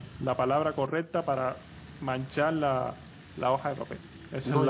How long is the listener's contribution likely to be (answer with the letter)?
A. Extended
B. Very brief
A